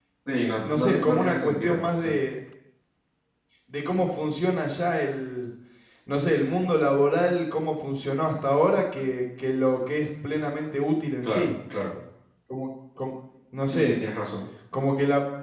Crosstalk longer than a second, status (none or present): present